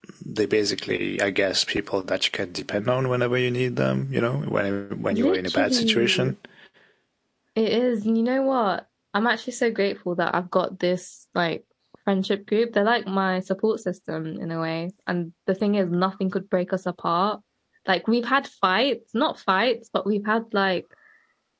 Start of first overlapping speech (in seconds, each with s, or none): 5.1 s